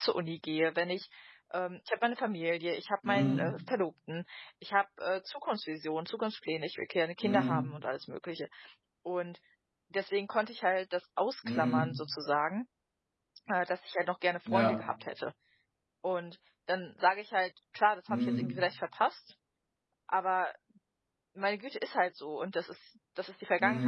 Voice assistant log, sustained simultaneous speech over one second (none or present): none